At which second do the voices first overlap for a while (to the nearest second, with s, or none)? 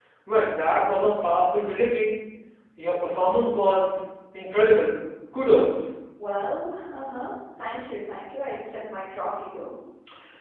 none